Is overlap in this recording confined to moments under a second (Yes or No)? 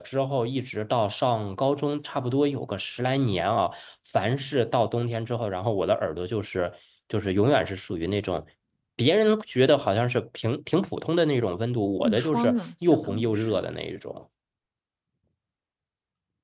No